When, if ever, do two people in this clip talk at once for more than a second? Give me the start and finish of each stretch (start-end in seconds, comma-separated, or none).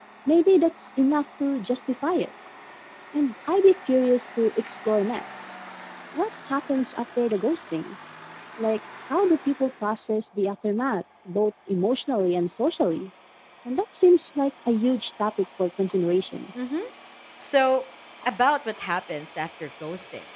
none